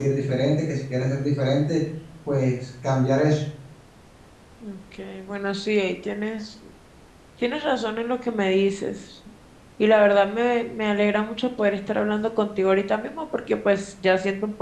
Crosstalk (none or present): none